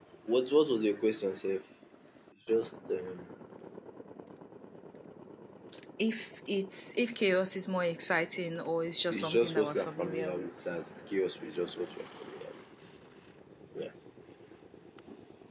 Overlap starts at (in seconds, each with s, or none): 9.1 s